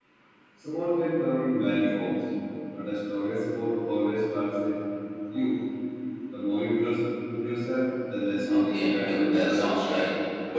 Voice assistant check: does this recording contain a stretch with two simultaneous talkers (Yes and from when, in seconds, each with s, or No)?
Yes, from 8.5 s